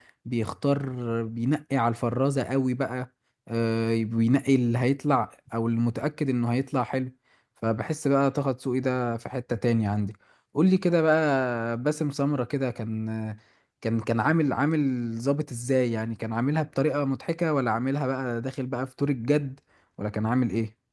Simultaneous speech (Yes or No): No